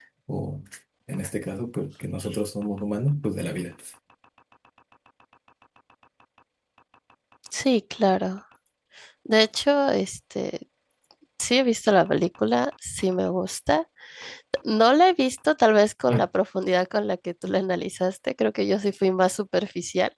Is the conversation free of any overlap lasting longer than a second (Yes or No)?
Yes